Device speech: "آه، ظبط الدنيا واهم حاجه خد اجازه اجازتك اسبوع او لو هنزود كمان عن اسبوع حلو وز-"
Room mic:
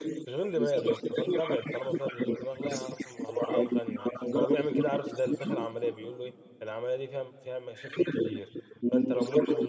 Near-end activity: present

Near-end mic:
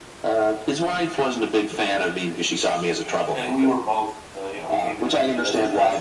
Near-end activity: present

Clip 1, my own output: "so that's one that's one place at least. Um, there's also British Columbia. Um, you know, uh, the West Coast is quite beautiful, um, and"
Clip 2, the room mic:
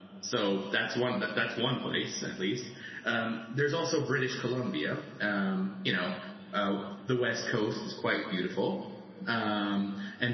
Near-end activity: none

